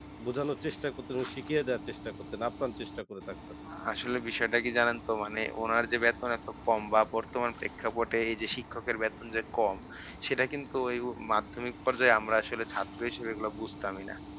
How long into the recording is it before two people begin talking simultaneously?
none

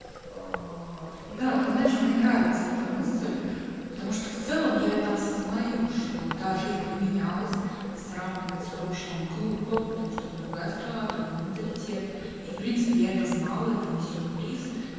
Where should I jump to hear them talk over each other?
1 s

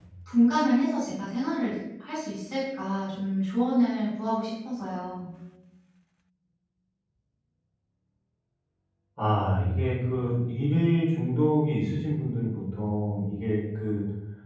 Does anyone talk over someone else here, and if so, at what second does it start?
none

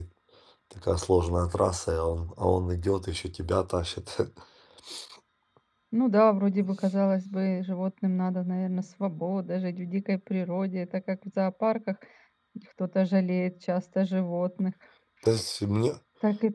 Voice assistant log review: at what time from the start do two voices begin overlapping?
none

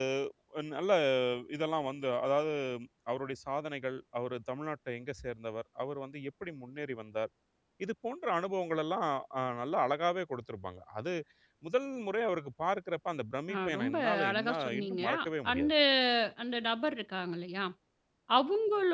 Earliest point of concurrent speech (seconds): 13 s

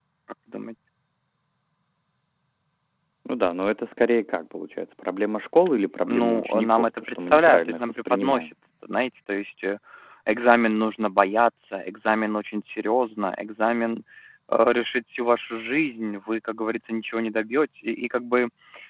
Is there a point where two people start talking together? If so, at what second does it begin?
6 s

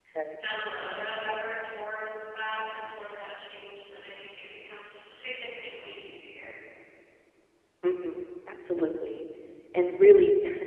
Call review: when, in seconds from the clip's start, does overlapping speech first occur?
none

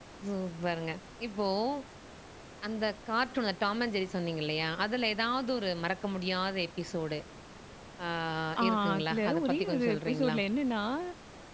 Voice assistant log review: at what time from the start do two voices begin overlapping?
9 s

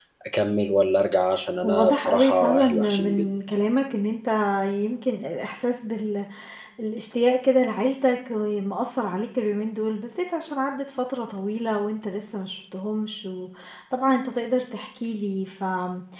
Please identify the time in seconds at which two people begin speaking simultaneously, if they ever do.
2 s

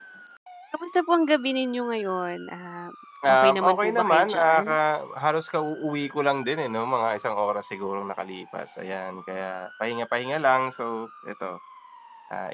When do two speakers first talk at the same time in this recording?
3 s

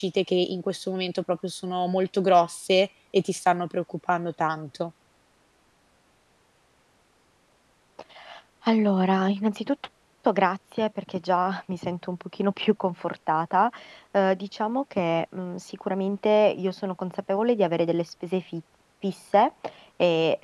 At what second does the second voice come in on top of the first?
none

